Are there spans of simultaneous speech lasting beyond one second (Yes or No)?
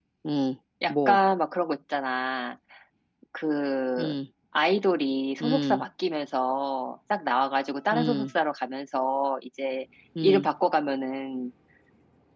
No